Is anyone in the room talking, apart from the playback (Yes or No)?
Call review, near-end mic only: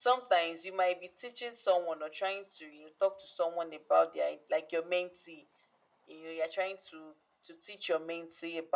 No